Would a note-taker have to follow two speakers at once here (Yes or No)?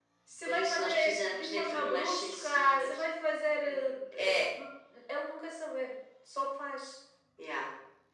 Yes